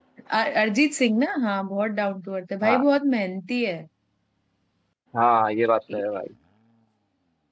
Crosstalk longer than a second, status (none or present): none